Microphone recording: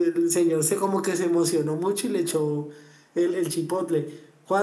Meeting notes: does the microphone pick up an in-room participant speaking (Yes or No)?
No